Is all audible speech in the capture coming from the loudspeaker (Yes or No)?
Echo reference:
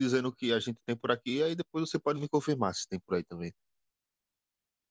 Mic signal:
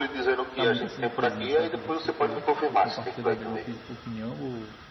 No